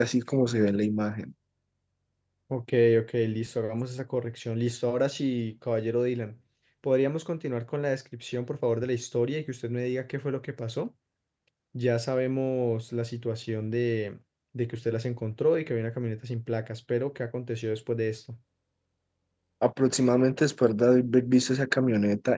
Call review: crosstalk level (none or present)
none